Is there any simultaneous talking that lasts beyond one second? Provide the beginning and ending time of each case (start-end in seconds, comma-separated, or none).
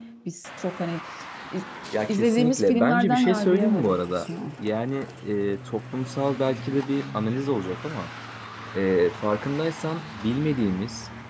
2.1-4.3